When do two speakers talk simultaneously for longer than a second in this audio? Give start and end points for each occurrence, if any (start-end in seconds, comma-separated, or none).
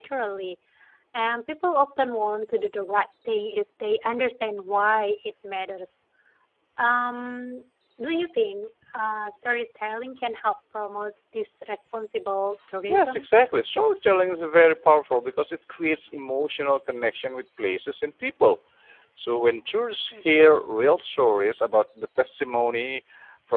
none